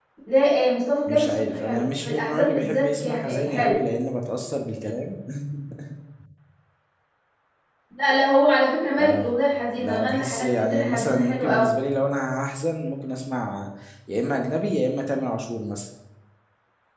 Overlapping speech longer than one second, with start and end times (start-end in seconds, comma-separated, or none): 1.1-3.8, 9.8-11.7